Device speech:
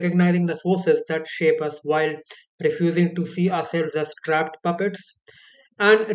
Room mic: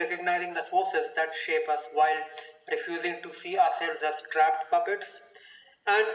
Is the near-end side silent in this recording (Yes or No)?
Yes